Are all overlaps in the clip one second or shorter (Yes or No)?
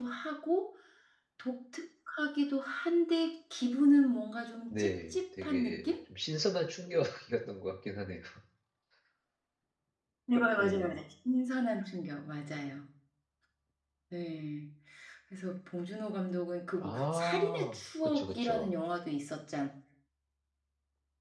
No